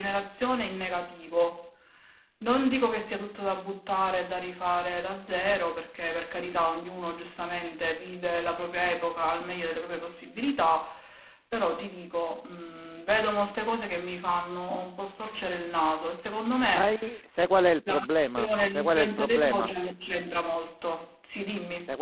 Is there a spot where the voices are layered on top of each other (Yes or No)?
Yes